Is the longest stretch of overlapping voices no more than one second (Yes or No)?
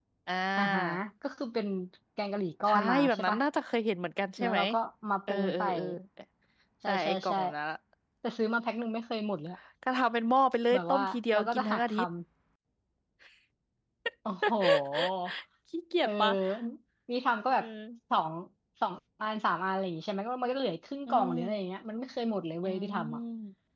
No